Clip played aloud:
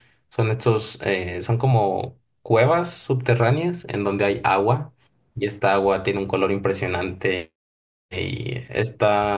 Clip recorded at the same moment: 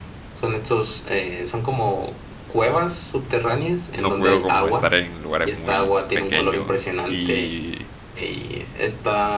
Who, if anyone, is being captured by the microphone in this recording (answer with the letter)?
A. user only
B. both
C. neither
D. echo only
B